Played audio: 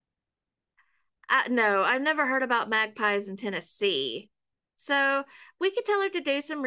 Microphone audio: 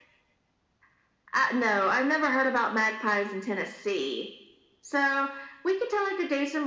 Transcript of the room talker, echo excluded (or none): none